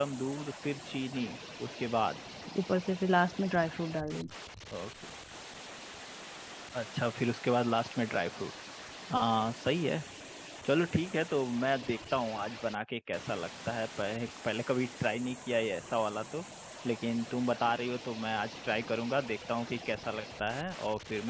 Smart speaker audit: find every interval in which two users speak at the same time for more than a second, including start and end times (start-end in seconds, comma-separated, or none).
none